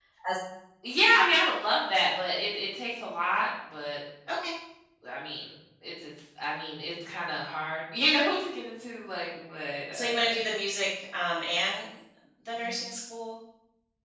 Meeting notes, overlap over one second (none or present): none